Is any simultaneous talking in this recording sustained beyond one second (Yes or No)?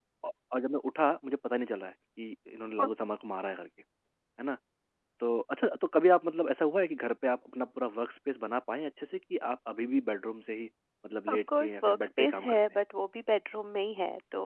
Yes